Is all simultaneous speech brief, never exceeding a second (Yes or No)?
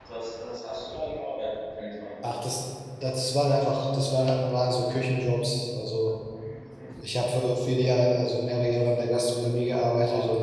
Yes